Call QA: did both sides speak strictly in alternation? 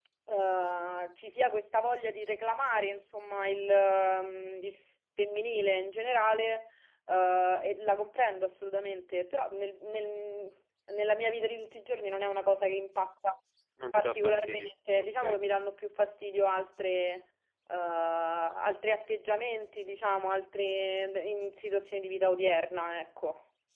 No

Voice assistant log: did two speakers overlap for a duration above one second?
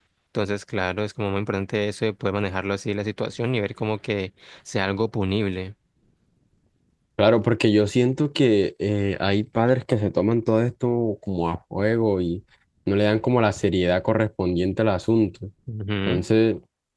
No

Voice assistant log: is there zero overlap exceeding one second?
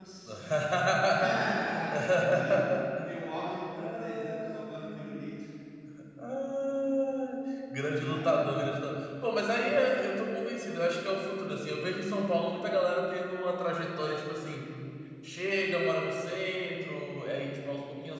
No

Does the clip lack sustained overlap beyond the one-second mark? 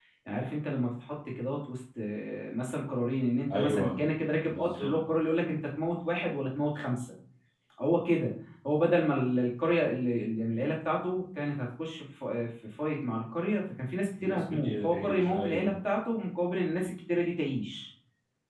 No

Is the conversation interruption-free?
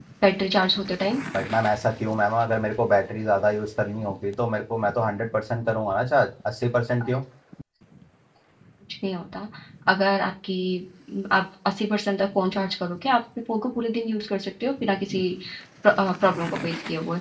Yes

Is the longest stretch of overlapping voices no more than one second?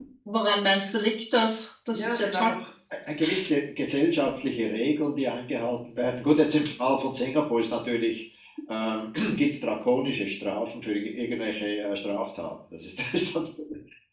Yes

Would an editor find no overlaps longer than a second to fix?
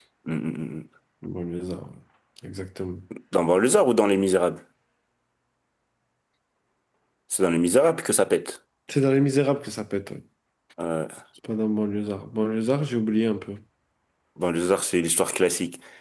Yes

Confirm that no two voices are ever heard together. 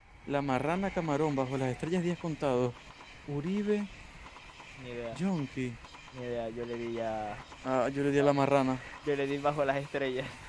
Yes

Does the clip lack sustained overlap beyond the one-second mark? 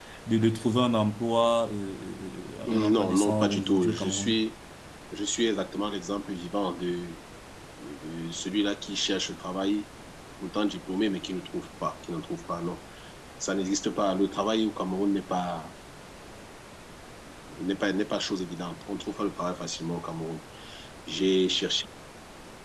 No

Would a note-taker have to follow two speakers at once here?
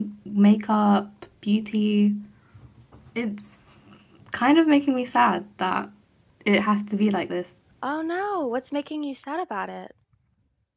No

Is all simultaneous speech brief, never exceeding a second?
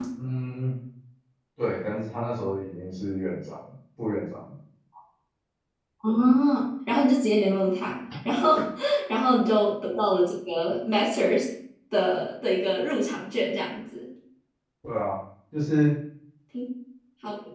Yes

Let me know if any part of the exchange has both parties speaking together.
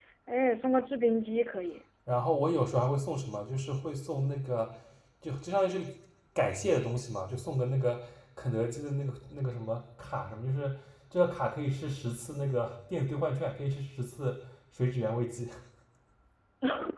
No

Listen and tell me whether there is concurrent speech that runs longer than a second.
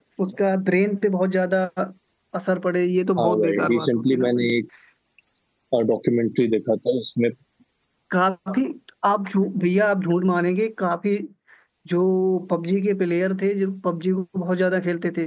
Yes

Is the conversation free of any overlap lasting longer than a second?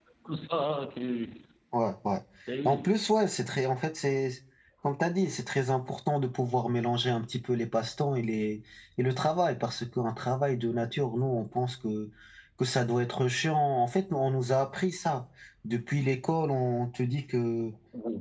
Yes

